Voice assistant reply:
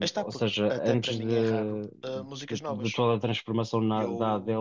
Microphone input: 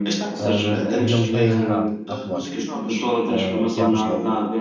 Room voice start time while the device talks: 0.4 s

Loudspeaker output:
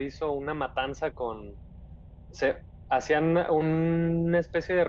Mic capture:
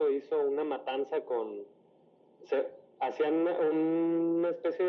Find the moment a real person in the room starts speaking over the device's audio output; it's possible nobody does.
none

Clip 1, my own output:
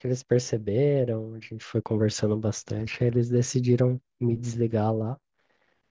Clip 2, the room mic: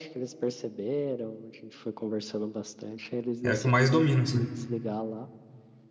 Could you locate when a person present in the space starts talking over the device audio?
3.4 s

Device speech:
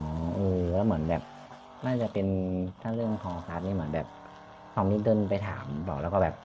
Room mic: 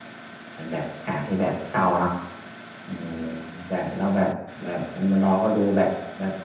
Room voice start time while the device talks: 0.5 s

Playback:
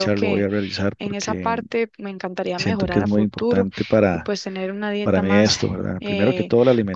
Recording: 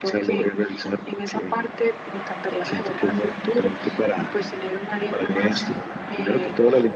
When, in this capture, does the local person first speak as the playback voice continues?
none

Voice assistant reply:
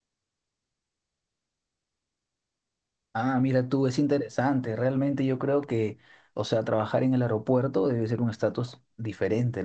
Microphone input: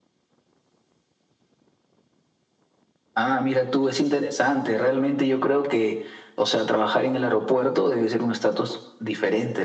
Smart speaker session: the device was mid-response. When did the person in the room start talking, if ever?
none

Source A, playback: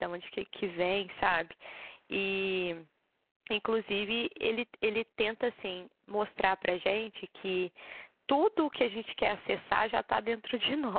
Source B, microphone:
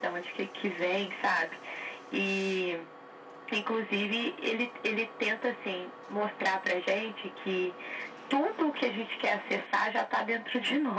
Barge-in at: none

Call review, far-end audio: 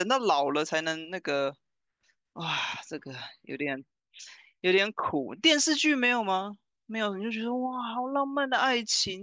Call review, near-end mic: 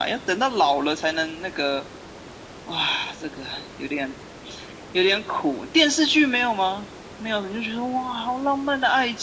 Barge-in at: none

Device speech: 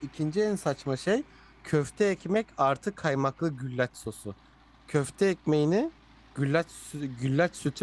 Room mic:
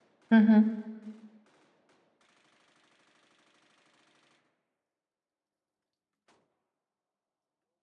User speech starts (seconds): 0.3 s

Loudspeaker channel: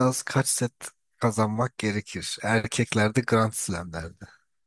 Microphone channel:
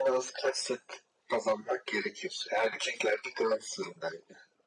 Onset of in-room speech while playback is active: none

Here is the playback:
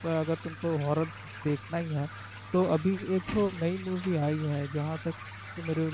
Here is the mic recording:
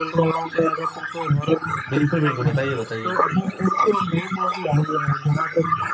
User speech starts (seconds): 1.9 s

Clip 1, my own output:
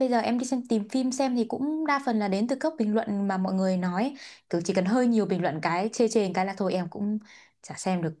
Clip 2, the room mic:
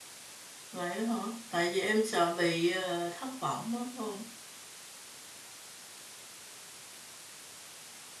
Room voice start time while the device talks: 0.7 s

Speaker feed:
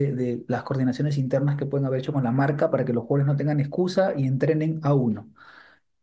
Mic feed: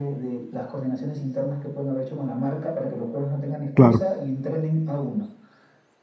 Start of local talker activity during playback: 3.7 s

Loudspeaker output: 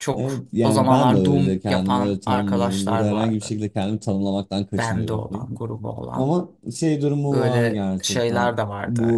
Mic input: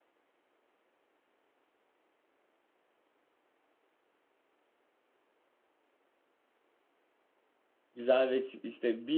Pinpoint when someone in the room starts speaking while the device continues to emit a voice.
7.9 s

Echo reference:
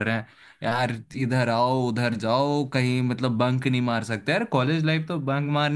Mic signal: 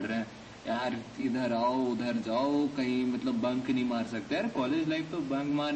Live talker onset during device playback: none

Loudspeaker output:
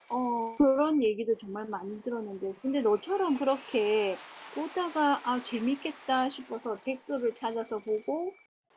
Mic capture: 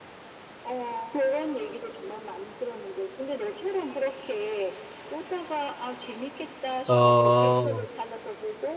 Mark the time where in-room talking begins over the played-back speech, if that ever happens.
6.9 s

